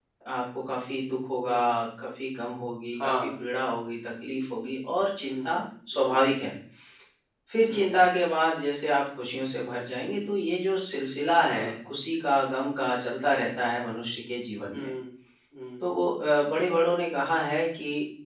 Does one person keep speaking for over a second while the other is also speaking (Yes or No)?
No